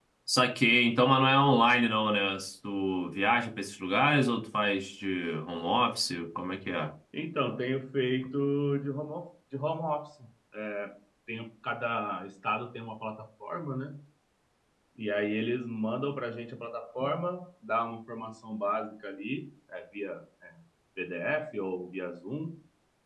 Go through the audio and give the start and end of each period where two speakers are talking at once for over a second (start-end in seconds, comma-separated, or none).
none